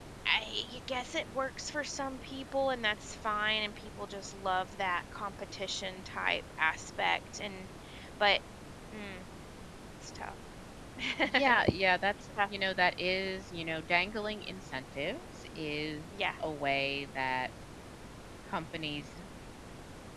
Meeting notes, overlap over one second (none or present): none